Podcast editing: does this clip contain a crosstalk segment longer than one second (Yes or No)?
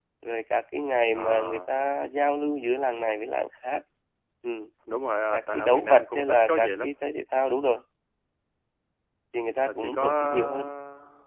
Yes